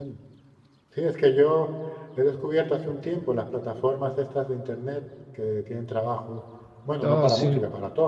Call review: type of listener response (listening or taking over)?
listening